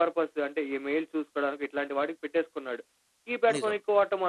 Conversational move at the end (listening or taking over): listening